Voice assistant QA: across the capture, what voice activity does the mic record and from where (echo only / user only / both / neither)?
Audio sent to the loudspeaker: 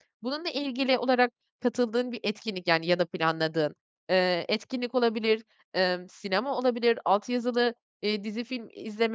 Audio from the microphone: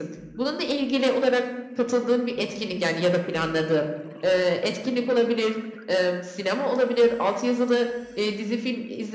echo only